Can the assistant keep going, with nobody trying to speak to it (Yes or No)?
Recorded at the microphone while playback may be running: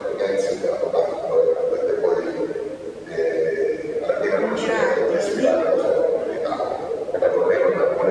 No